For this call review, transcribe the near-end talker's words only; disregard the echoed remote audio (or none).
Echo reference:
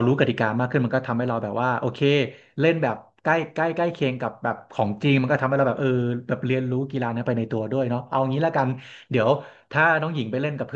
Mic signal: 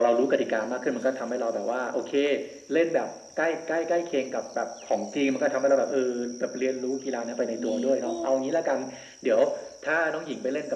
มีคู่